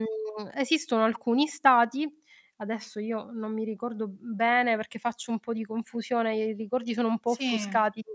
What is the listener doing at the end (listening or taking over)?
listening